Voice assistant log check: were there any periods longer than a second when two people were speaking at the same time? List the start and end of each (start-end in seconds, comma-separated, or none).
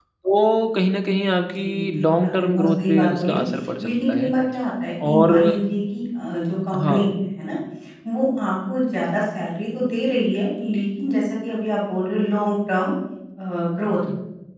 1.6-3.4